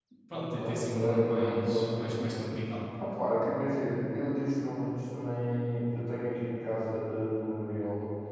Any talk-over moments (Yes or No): Yes